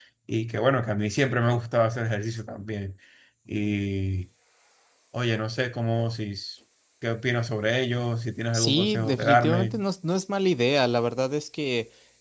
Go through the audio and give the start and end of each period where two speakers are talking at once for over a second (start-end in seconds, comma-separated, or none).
8.6-9.8